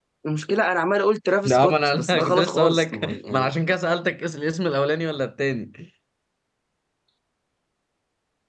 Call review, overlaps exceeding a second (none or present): present